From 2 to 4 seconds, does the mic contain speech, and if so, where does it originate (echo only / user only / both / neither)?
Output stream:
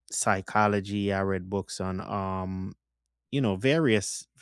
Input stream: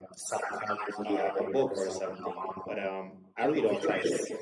both